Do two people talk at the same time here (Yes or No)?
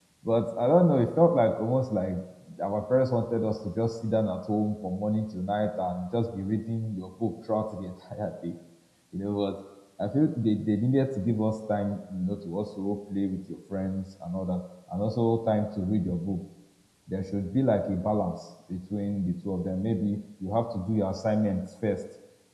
No